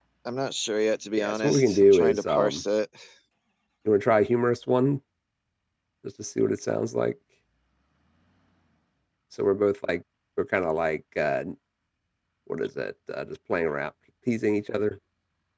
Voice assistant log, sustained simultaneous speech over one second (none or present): present